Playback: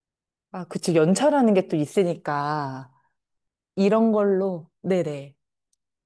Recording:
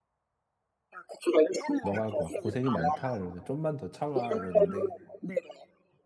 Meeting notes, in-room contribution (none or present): present